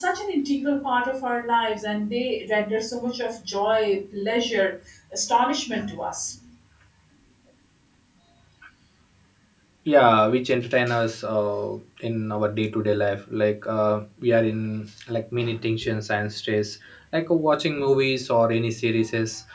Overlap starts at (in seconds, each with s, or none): none